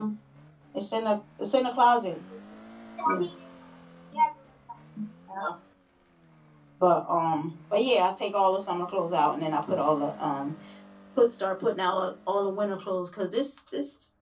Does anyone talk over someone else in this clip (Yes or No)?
No